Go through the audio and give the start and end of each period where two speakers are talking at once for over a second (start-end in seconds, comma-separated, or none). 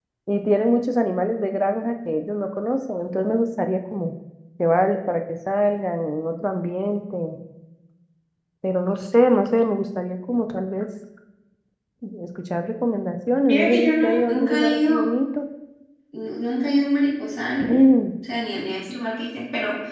13.5-15.0